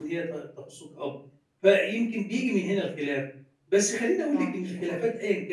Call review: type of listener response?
listening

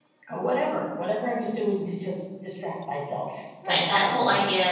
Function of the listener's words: taking over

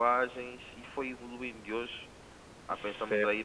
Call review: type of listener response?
taking over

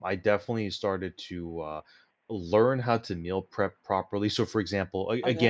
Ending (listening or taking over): listening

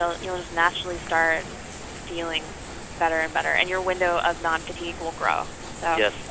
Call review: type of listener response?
listening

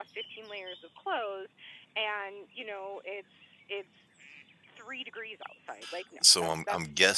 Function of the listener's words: taking over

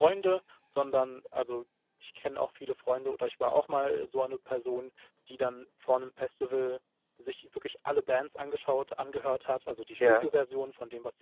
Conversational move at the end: listening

